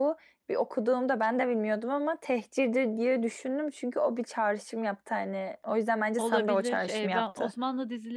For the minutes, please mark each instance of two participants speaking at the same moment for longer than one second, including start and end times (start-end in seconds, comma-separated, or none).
6.2-7.5